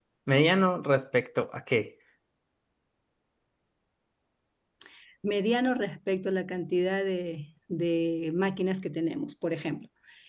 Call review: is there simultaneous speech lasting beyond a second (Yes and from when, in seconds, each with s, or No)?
No